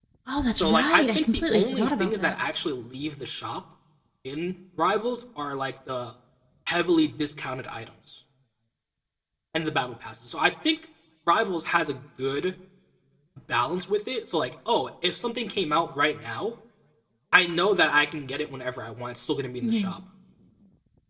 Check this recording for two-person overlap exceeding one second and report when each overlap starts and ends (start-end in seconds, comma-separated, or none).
0.6-2.3